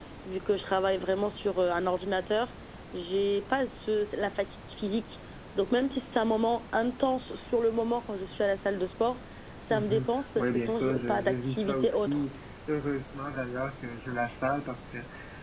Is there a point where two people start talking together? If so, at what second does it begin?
9.7 s

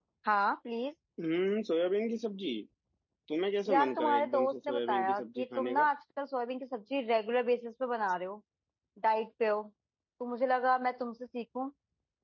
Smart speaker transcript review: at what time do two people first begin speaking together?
3.7 s

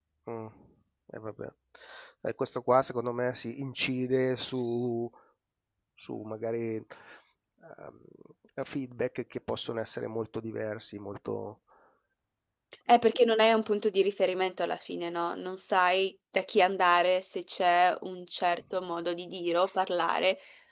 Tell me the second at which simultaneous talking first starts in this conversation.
none

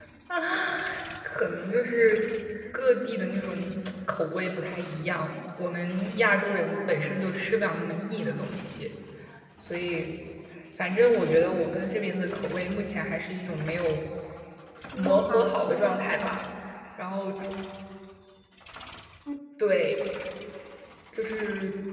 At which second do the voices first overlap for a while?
15.0 s

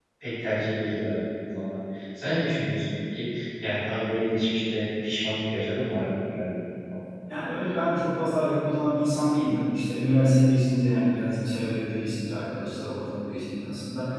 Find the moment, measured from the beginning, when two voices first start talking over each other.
none

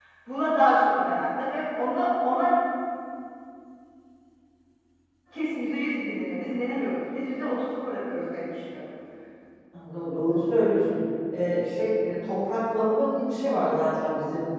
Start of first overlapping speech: none

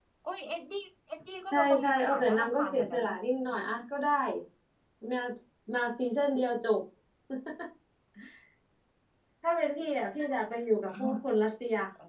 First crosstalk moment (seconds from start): 1.5 s

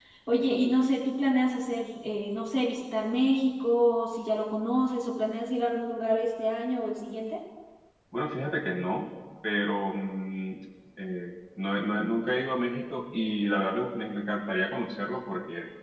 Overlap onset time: none

